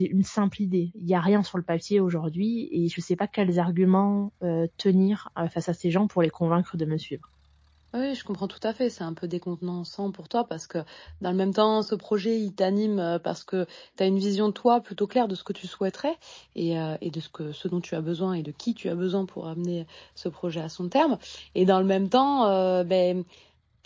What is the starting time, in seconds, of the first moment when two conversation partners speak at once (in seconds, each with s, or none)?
none